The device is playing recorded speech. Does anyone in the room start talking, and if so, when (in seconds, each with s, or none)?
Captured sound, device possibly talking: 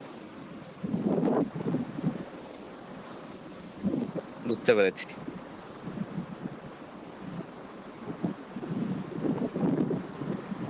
4.5 s